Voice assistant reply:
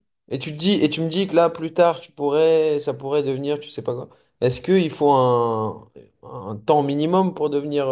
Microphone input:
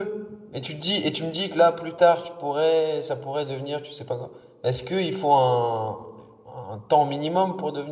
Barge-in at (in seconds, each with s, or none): none